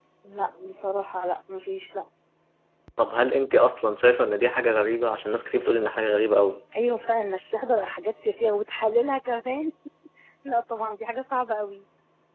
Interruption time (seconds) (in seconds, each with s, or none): none